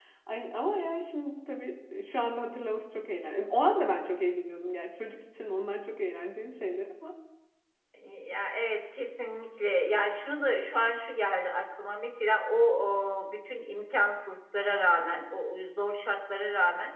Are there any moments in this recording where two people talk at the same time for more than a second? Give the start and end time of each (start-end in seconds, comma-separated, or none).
none